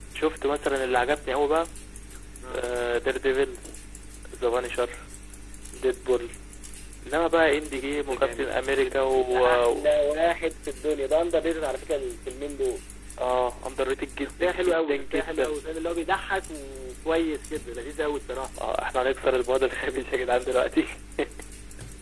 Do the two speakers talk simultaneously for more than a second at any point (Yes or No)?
Yes